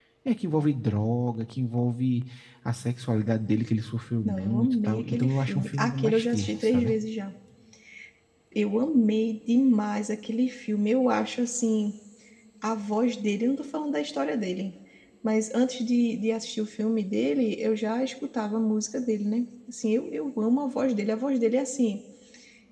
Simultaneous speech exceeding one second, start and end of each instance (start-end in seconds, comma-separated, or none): 4.2-6.9